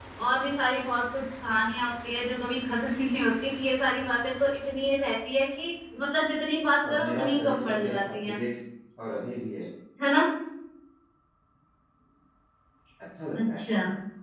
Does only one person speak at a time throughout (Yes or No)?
No